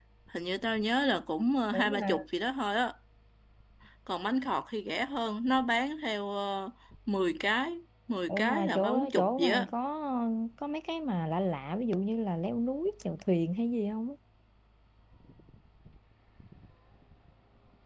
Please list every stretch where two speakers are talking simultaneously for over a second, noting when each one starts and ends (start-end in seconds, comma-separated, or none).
8.3-9.7